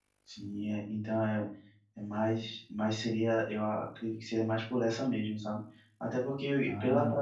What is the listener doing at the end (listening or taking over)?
listening